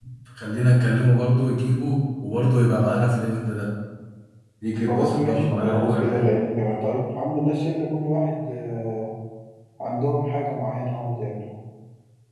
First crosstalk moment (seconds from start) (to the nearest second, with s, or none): 5 s